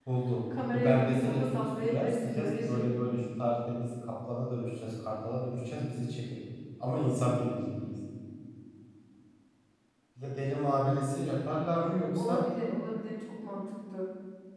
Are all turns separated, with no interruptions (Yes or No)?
No